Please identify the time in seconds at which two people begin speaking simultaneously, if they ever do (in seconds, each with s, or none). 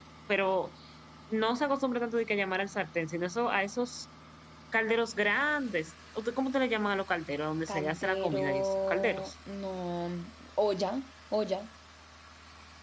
7.7 s